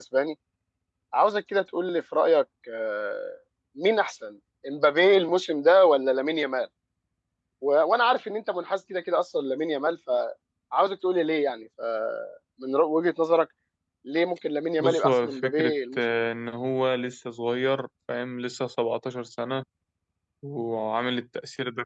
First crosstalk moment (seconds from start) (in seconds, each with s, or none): 14.8 s